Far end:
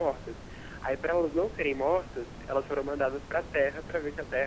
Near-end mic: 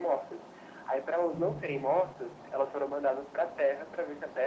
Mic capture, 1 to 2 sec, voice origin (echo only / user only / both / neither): both